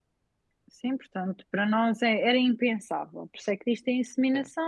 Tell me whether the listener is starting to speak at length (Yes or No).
No